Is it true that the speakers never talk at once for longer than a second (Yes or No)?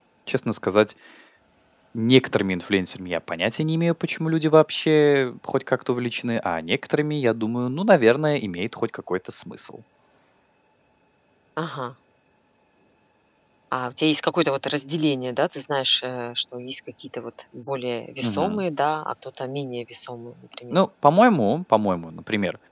Yes